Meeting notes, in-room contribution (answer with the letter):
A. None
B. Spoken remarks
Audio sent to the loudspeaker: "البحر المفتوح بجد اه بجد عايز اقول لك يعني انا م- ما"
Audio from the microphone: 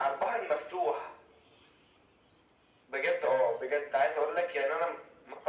A